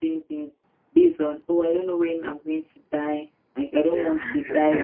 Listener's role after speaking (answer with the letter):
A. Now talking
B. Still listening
B